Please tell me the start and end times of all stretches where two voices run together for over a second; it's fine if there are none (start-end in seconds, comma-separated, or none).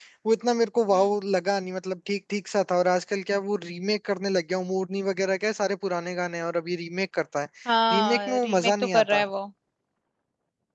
7.9-9.2